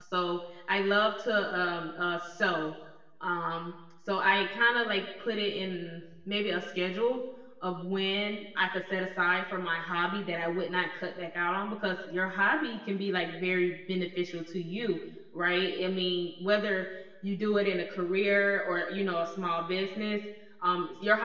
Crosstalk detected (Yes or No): No